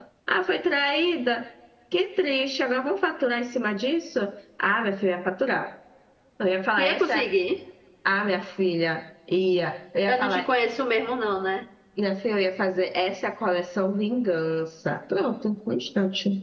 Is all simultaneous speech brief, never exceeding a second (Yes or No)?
Yes